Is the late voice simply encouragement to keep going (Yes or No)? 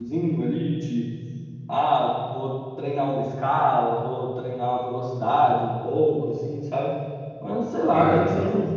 Yes